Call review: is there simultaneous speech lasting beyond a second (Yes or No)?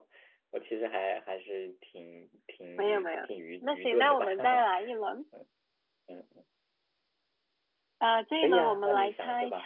Yes